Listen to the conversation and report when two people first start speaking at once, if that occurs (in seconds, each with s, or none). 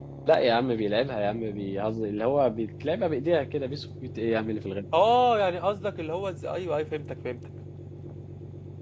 none